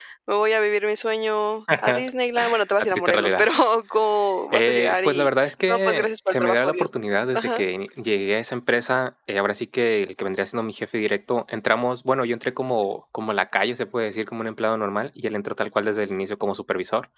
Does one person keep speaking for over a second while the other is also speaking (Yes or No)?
Yes